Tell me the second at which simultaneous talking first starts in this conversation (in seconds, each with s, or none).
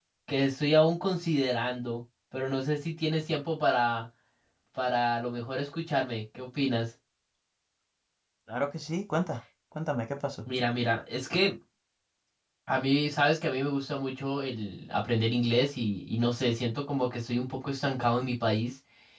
none